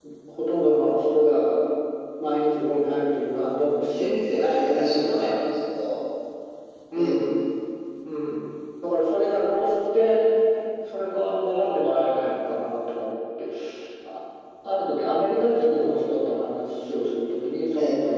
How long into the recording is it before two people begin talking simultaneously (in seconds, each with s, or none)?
4.0 s